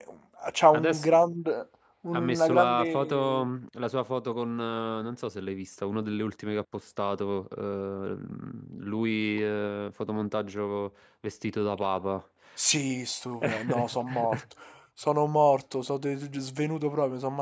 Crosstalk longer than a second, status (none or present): present